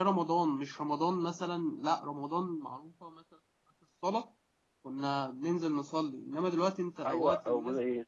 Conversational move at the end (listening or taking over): taking over